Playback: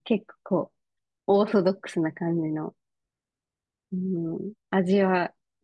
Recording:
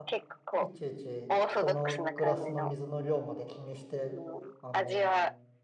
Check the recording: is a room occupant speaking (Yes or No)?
Yes